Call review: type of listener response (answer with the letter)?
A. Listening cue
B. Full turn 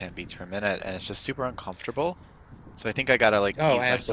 A